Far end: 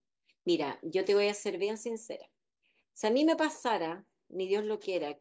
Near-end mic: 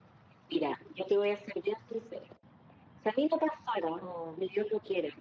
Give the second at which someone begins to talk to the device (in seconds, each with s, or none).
4.0 s